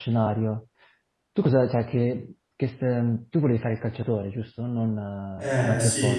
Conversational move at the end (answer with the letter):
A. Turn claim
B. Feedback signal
A